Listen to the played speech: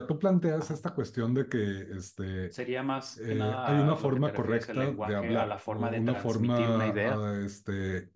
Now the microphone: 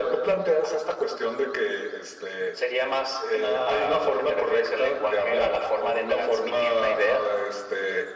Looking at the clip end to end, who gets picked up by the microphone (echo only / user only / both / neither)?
echo only